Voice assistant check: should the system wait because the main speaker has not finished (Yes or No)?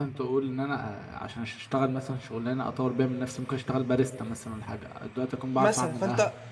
No